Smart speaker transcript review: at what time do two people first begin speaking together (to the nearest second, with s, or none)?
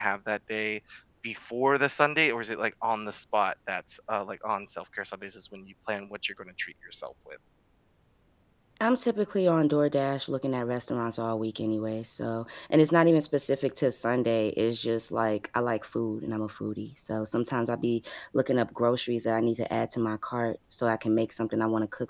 none